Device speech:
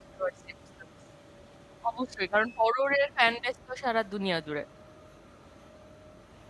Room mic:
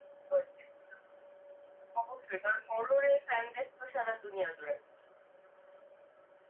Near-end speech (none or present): none